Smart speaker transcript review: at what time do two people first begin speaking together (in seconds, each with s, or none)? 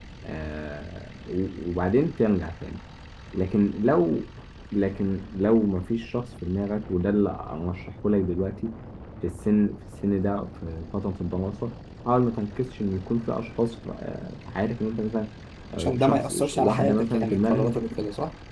15.8 s